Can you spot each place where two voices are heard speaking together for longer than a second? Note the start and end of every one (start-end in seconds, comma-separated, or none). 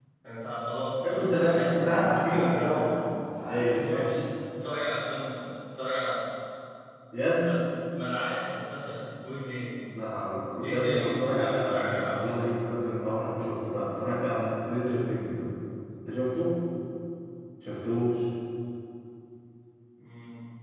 1.0-2.9, 10.6-12.6